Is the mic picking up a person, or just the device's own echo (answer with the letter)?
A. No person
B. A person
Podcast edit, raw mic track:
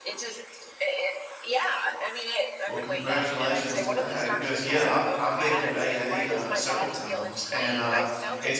B